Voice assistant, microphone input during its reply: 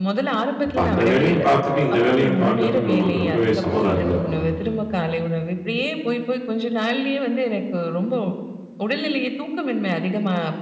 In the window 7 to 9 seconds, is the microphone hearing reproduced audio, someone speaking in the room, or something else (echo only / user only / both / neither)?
echo only